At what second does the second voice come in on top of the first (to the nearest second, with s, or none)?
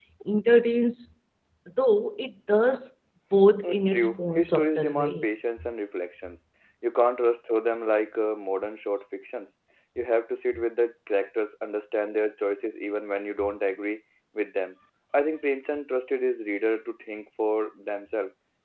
4 s